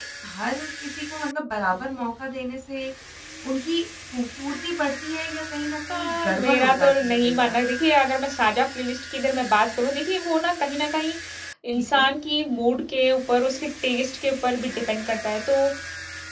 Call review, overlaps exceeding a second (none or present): present